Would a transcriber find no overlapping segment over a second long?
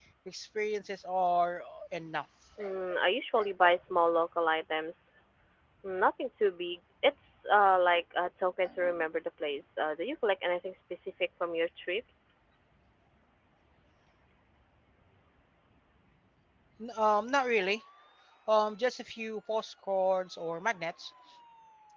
Yes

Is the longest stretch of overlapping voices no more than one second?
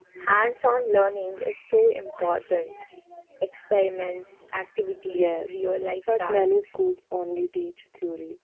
No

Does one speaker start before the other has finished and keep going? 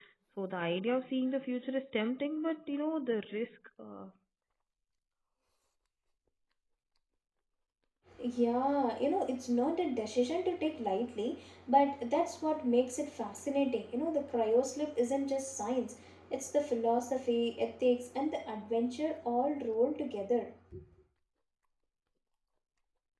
No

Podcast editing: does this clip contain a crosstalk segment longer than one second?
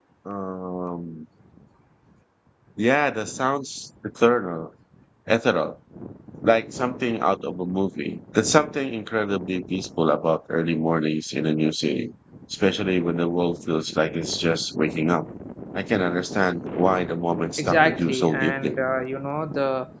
Yes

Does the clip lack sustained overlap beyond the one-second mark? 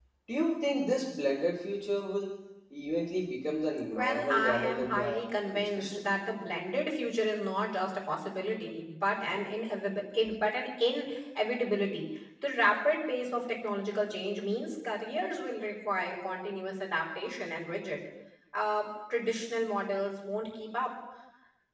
No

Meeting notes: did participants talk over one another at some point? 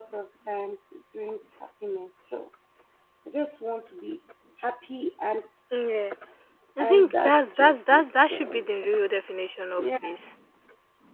Yes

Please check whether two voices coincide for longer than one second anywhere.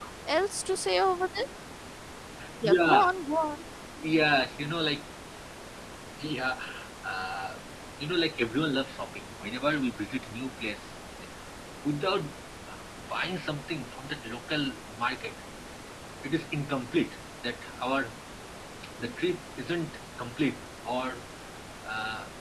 No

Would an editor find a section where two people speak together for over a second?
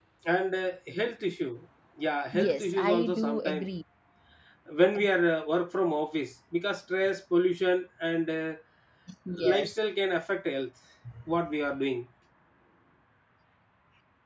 Yes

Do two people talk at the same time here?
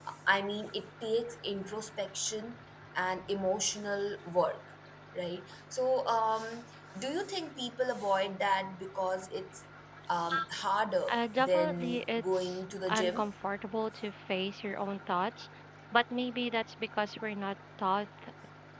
Yes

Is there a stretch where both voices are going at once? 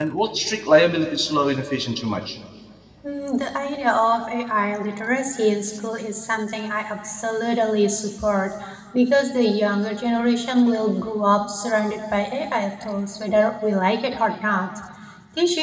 No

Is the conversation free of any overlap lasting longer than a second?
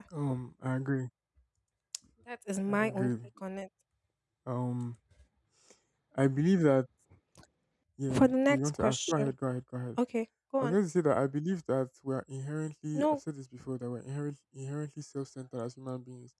No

